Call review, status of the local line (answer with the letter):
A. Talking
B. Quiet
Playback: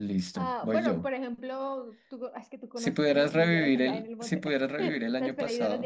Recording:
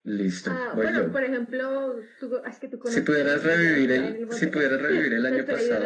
B